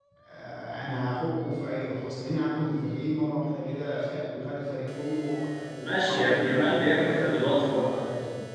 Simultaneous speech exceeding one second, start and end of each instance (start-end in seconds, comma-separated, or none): 5.8-7.9